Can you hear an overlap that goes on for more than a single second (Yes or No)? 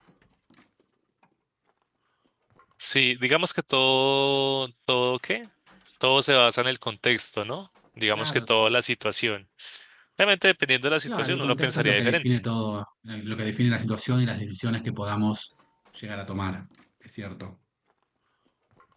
Yes